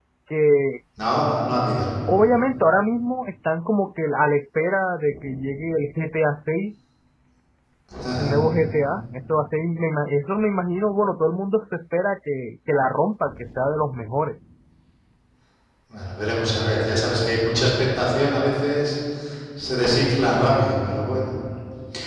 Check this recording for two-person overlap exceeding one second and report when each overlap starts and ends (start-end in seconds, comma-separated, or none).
none